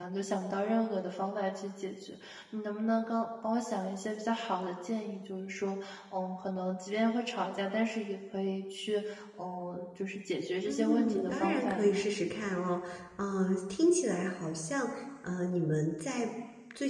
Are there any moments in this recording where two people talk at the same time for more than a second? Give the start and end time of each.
10.7-12.0

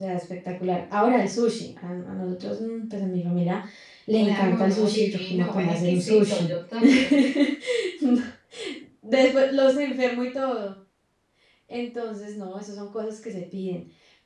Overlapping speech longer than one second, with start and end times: 4.2-6.5

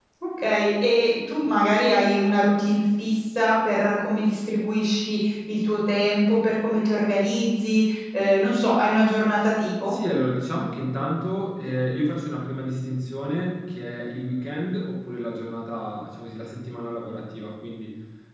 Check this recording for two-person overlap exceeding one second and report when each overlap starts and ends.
none

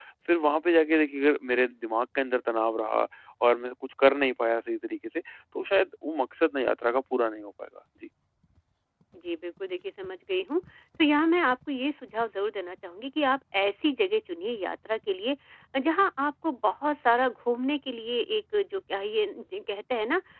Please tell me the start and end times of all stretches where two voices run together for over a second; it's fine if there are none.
none

